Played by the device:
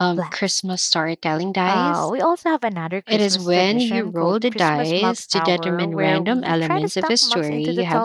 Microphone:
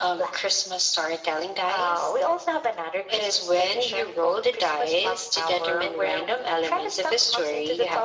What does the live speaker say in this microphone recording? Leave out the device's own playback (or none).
none